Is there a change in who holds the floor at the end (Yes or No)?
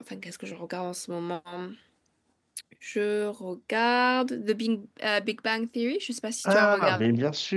Yes